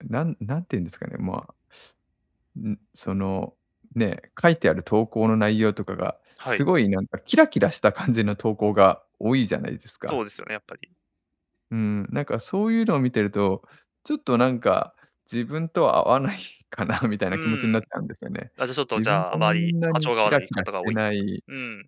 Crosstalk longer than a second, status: present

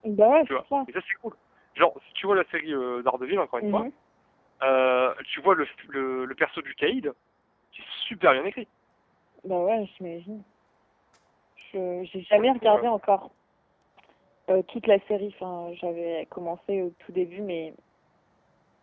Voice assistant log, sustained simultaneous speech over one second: none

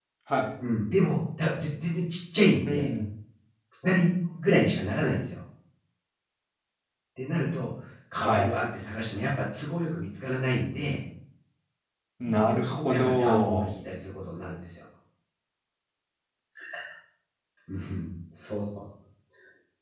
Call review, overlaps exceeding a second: present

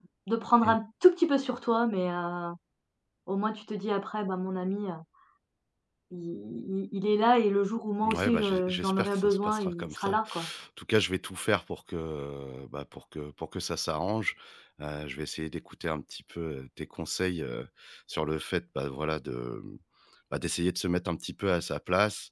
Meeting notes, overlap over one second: present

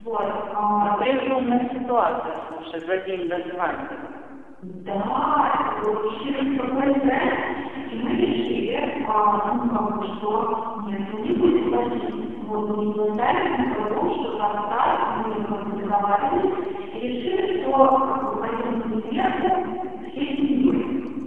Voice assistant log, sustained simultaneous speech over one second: none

